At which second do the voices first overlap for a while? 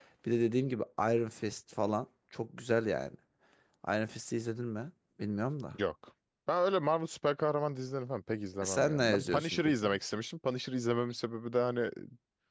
8.6 s

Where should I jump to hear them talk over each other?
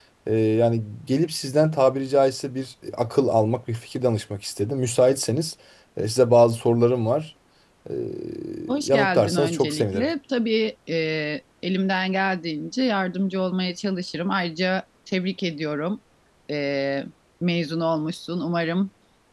8.8 s

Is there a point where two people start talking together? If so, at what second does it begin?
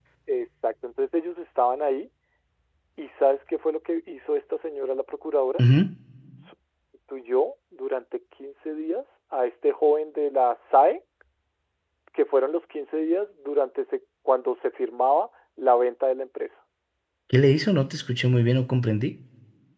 none

